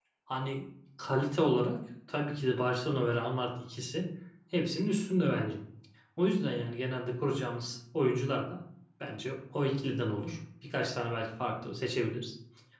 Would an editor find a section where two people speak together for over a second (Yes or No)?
No